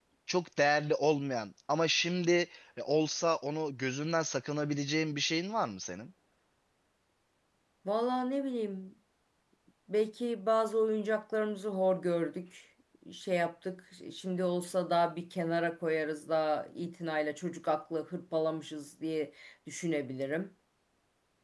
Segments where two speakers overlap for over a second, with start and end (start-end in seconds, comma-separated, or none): none